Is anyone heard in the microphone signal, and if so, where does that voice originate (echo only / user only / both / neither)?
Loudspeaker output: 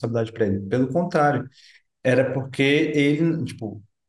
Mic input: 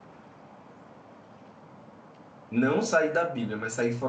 user only